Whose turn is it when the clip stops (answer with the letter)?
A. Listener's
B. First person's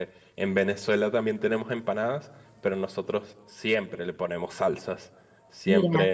B